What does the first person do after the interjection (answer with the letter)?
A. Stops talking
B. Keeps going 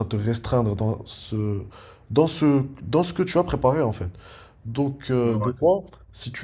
B